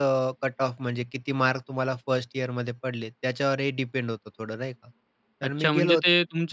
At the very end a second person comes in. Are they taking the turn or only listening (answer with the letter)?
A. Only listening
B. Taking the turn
B